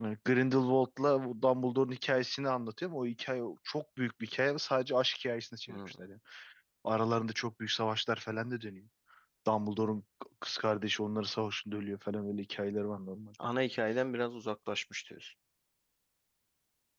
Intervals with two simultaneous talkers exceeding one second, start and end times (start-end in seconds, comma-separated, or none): none